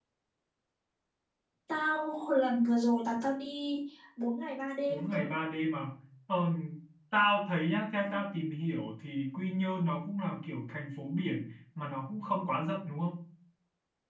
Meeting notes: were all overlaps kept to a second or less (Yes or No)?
Yes